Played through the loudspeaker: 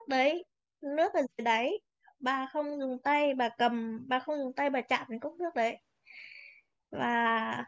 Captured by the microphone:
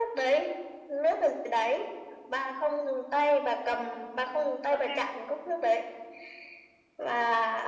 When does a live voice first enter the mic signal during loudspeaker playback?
4.7 s

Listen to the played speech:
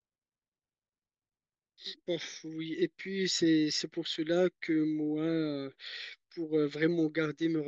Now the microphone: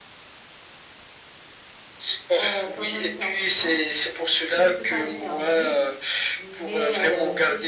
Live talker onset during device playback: 2.4 s

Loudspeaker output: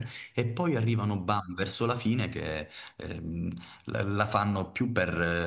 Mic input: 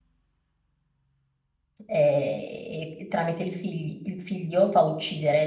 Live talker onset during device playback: 1.9 s

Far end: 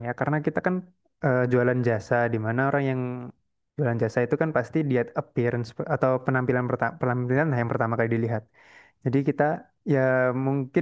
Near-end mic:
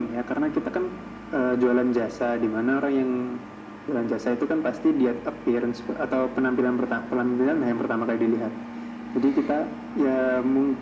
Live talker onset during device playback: none

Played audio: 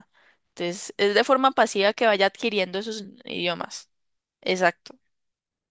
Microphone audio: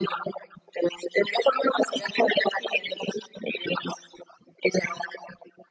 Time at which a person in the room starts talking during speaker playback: none

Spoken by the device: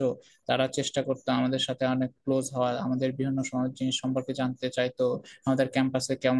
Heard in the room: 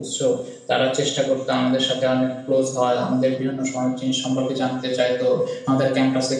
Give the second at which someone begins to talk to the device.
none

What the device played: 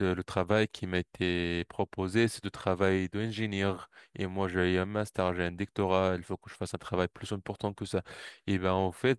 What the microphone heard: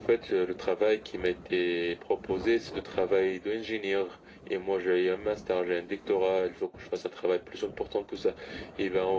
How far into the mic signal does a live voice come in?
none

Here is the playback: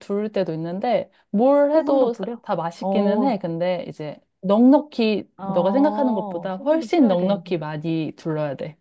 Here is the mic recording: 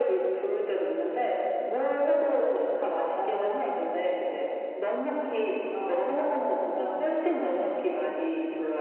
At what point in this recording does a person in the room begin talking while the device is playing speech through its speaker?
none

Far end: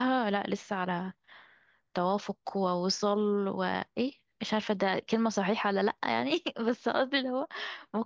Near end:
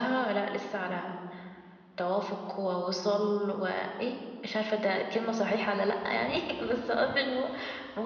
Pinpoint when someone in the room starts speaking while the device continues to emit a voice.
none

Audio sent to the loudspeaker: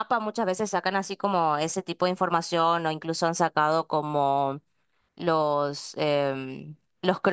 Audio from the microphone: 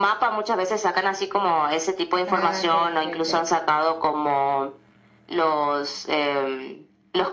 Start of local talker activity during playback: 2.2 s

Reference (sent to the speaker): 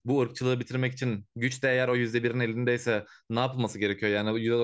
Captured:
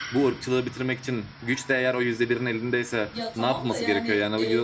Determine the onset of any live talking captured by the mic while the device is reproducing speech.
3.1 s

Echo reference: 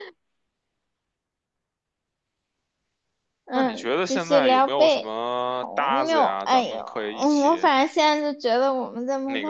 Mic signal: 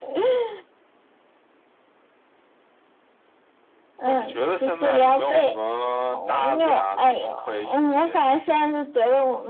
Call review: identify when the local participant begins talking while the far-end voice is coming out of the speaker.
none

